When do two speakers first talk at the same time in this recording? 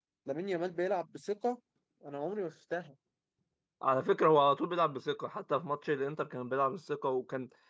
none

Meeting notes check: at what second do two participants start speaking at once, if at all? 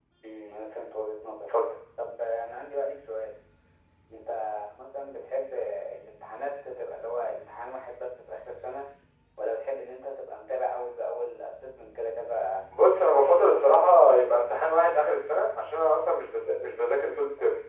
13.1 s

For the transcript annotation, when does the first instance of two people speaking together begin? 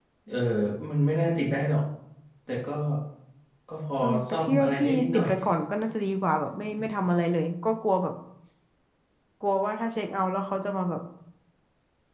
4.0 s

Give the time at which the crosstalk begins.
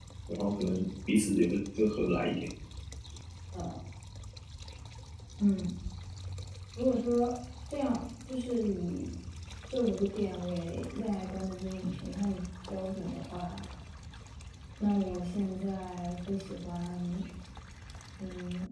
none

